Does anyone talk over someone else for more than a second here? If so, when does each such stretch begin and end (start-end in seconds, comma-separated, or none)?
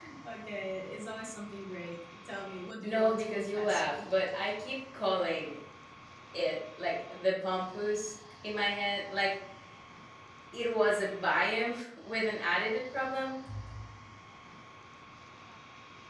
2.8-4.1